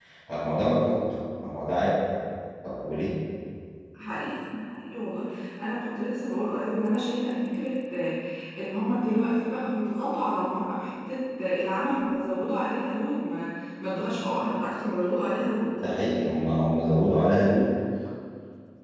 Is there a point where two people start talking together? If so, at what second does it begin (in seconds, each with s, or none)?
none